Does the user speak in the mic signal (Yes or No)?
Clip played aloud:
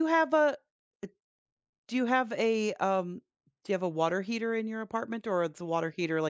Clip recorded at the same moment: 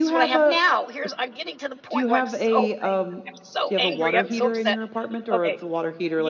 Yes